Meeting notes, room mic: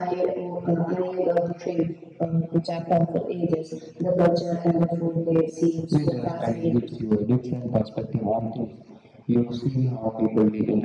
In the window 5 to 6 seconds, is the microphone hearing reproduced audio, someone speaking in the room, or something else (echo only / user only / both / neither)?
echo only